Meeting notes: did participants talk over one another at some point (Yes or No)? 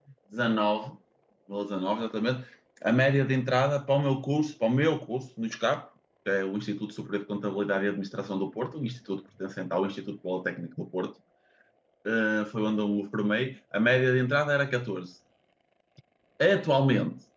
No